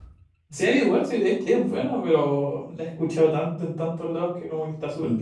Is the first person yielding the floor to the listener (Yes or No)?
Yes